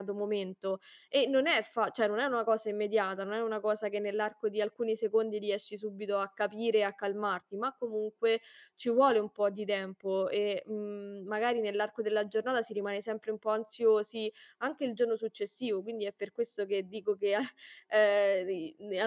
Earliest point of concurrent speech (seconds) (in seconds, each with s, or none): none